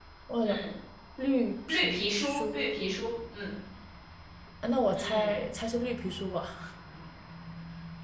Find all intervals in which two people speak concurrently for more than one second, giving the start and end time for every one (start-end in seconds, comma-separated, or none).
1.7-2.9